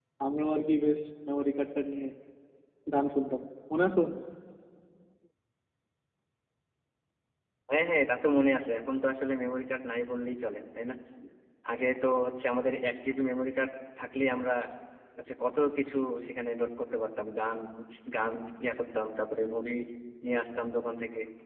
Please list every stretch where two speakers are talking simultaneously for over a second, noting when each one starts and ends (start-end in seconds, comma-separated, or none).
none